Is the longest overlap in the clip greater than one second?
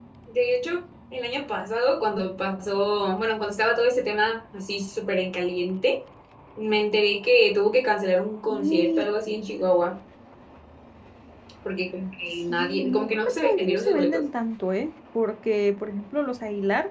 Yes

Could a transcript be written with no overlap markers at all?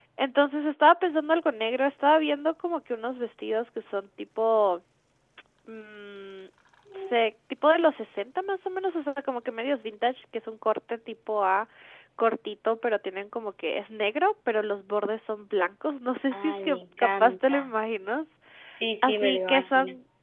No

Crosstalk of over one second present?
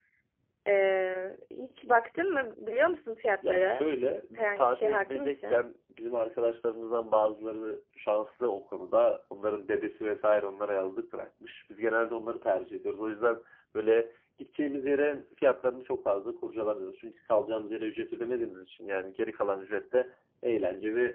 Yes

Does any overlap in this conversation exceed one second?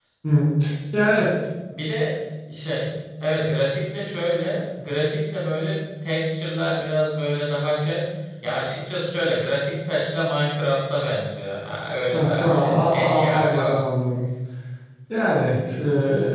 Yes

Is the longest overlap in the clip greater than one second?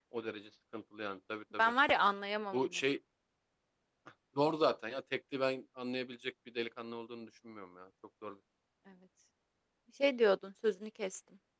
No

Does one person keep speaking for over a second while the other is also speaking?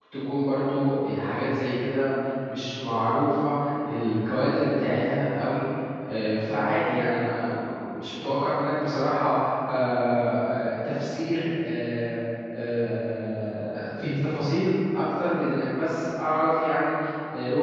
No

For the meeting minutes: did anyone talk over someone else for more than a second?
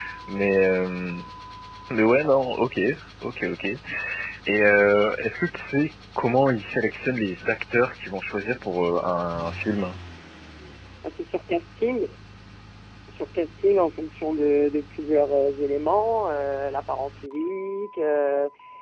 No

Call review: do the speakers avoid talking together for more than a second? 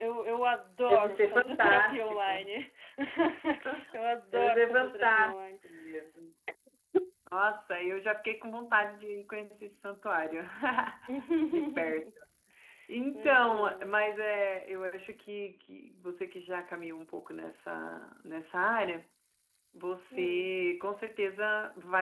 No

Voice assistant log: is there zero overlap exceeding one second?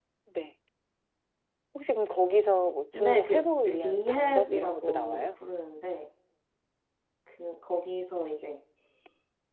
No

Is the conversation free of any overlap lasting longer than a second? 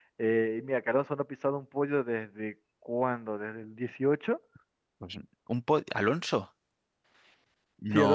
Yes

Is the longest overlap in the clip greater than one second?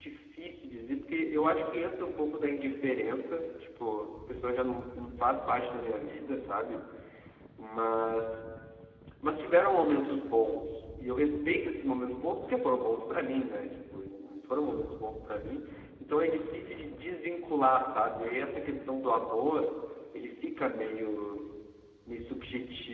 No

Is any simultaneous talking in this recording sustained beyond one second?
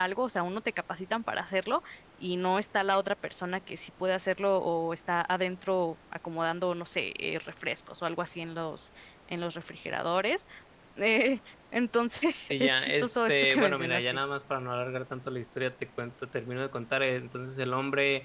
Yes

